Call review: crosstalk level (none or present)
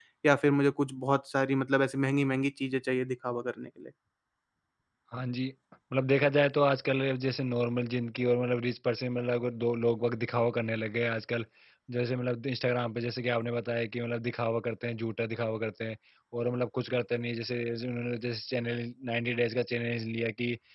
none